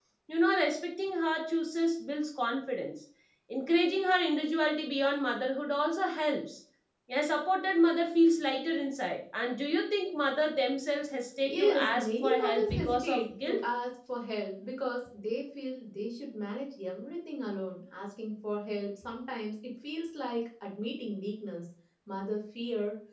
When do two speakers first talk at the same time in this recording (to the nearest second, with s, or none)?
11 s